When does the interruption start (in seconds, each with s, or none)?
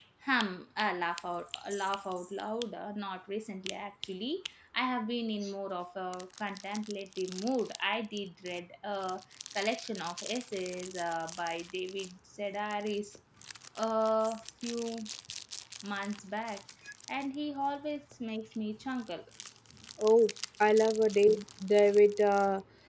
none